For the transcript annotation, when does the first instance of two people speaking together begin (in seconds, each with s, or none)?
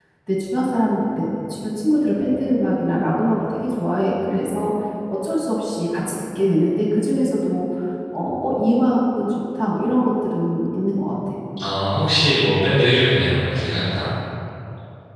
none